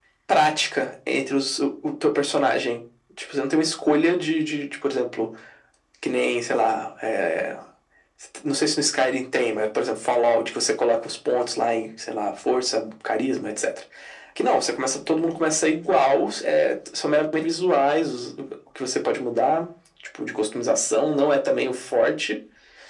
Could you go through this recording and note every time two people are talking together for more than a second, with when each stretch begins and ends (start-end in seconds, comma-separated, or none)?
none